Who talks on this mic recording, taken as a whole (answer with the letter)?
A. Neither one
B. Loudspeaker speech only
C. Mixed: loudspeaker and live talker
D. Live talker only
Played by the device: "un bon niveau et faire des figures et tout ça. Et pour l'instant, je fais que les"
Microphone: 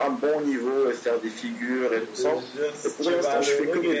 C